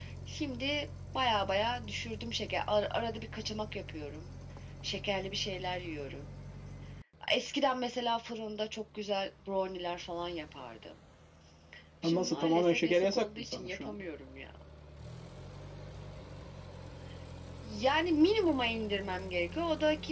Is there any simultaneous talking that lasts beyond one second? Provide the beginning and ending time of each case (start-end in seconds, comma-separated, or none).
12.0-14.0